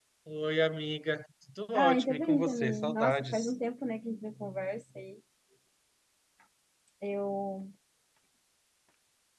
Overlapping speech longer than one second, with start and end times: 1.7-3.5

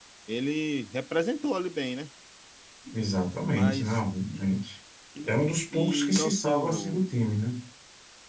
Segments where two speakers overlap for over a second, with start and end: 5.2-7.0

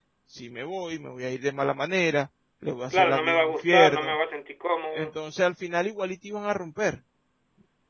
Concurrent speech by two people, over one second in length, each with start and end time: 2.9-4.2

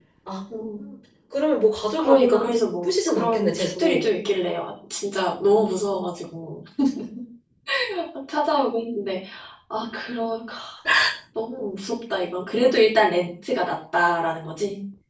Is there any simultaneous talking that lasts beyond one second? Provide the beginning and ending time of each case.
2.0-4.0

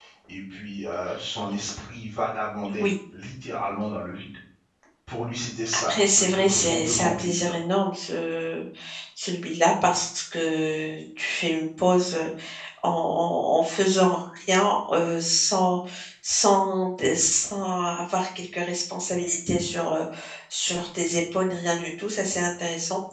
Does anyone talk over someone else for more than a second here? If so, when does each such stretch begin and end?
5.7-7.5

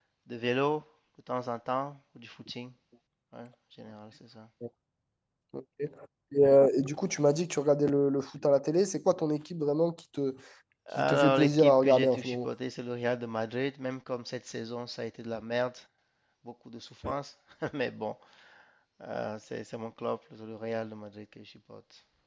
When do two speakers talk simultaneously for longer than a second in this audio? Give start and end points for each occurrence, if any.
11.0-12.5

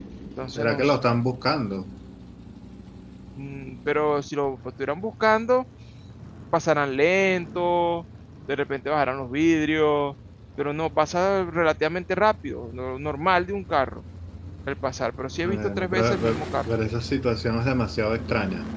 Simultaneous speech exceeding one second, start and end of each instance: 15.4-16.7

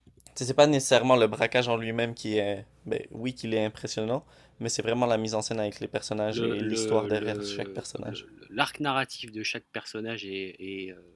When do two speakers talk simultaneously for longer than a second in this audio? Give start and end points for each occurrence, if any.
6.3-8.2

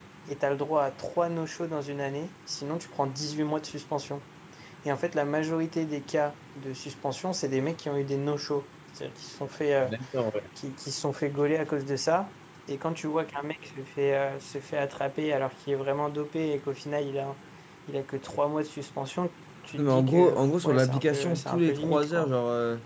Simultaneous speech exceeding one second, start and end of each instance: 19.8-22.3

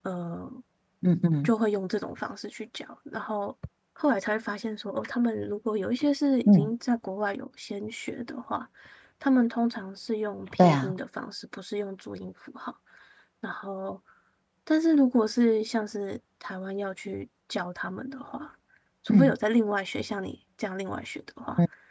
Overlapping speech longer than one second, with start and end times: none

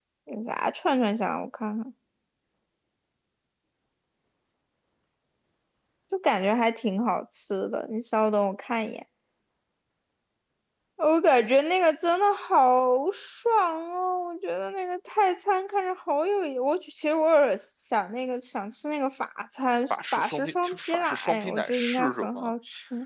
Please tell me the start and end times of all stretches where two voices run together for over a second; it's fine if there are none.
19.9-22.5

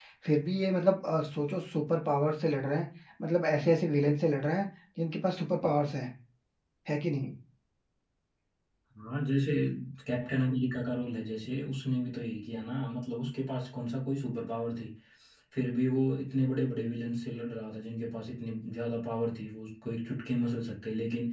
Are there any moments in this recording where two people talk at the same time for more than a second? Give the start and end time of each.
none

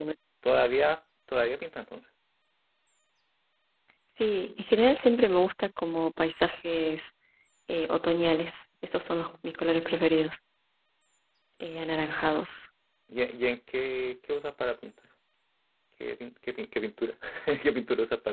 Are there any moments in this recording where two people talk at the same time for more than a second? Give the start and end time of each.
none

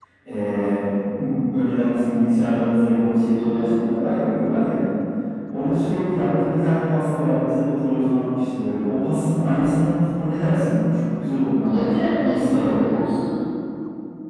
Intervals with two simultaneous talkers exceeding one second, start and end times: 11.6-12.8

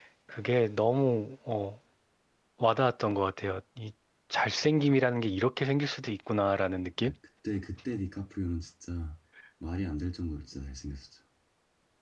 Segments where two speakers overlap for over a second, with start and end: none

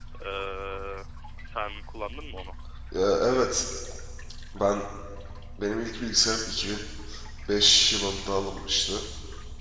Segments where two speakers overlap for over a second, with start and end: none

